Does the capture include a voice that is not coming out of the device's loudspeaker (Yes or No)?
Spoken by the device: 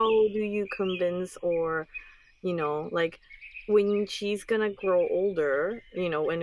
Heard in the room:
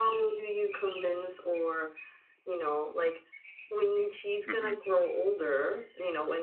Yes